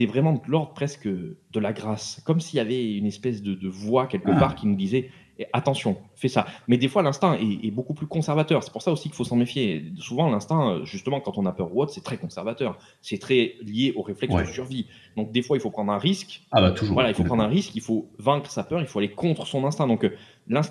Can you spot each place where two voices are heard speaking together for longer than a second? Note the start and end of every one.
none

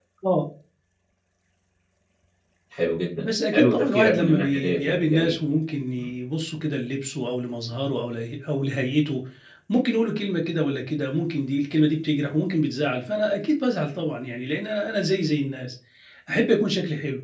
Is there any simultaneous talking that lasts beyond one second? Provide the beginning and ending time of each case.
3.2-5.4

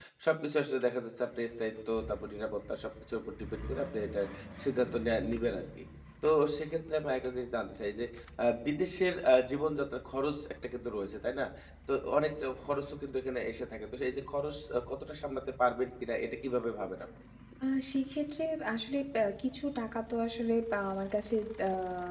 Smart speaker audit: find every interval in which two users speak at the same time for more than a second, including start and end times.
none

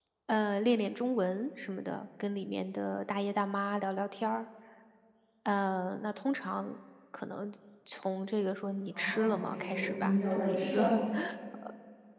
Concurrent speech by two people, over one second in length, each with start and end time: 8.9-10.8

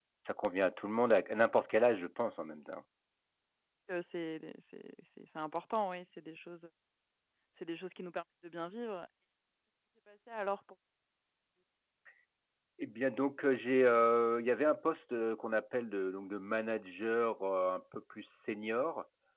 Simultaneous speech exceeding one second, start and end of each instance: none

